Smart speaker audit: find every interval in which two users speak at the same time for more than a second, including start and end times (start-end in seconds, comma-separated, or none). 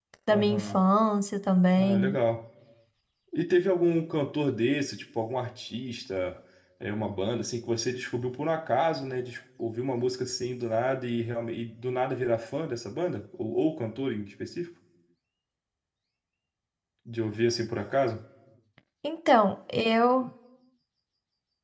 none